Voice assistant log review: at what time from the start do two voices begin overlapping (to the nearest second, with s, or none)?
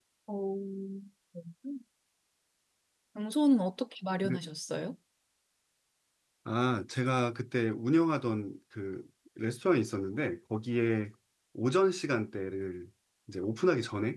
none